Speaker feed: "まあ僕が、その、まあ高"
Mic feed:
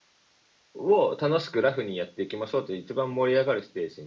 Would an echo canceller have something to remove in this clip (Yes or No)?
No